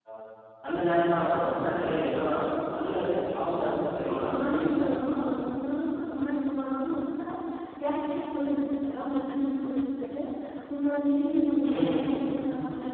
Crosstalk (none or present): present